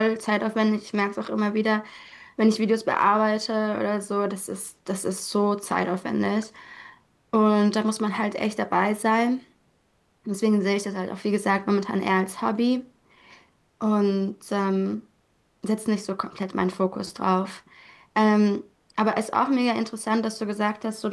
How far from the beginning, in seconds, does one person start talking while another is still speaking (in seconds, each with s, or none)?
none